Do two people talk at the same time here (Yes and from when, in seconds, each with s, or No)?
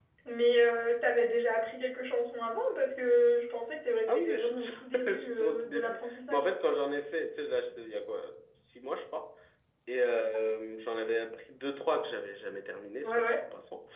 Yes, from 4.1 s